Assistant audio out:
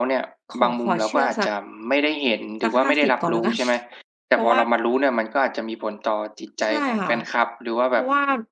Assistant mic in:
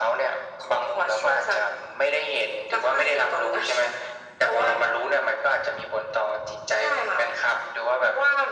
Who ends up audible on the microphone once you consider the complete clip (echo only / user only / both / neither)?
echo only